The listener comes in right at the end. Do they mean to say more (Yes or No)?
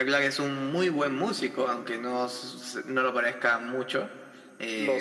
No